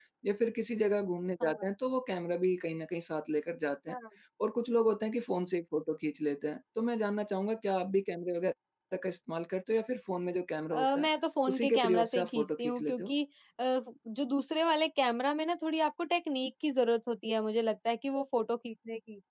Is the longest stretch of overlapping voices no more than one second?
No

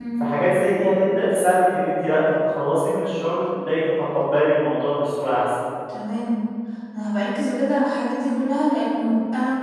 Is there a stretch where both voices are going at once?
No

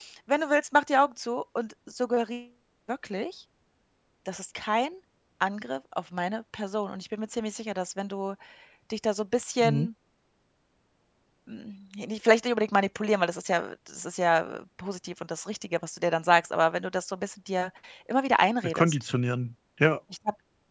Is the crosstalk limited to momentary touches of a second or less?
Yes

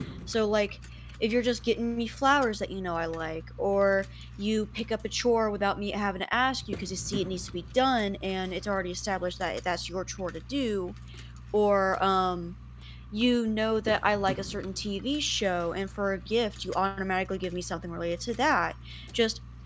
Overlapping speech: No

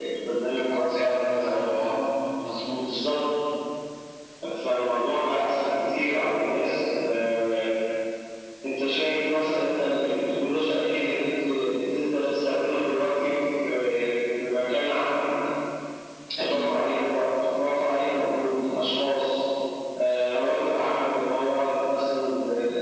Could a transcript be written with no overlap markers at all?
No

